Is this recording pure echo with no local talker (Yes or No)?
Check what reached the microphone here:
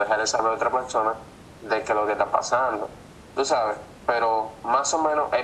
Yes